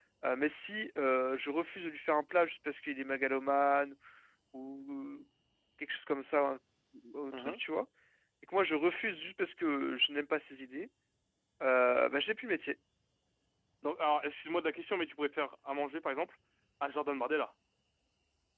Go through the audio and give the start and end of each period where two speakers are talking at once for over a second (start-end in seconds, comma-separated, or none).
none